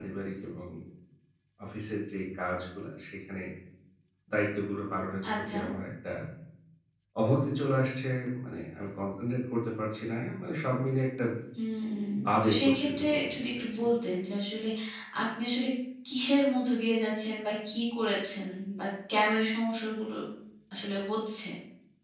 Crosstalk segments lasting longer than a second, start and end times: 12.4-13.9

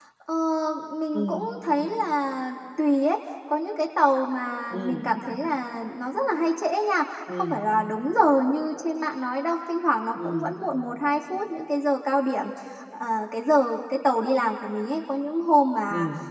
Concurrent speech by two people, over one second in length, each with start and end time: none

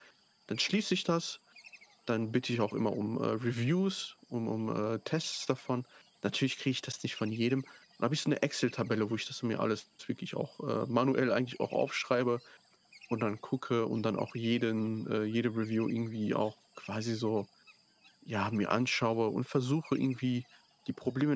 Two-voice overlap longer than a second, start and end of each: none

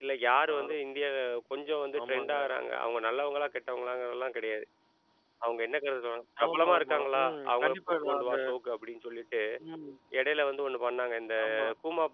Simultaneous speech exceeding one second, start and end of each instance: 6.5-8.3

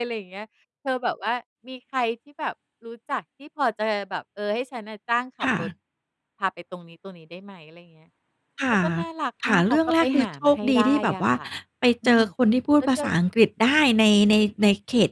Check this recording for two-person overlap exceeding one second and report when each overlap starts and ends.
9.4-11.2

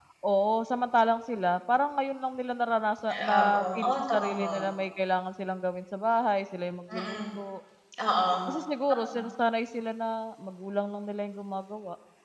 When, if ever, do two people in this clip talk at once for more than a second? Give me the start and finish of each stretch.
3.1-4.6

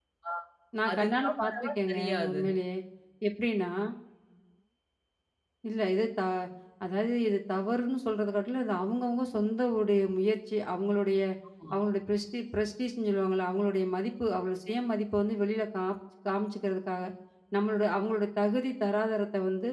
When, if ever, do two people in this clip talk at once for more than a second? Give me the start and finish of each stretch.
0.9-2.4

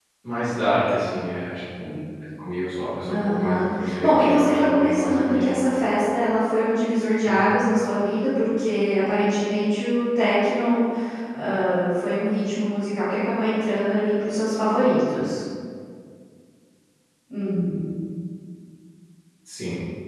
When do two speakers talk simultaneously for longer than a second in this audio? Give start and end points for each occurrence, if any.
3.1-5.6

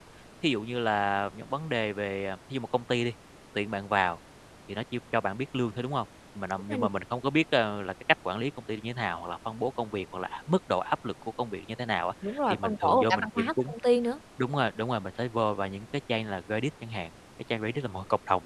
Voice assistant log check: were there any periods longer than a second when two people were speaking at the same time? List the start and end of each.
12.5-13.7

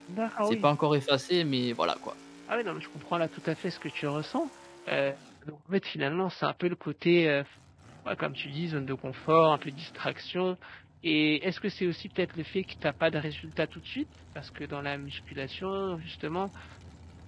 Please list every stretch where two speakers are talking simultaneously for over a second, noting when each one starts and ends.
none

